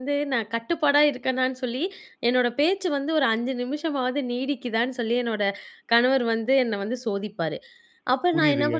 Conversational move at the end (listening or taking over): listening